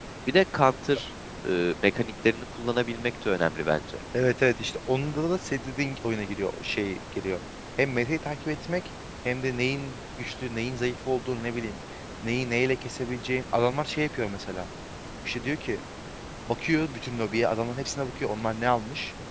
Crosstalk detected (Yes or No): No